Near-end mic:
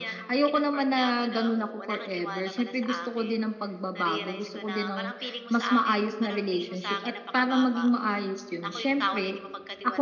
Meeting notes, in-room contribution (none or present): none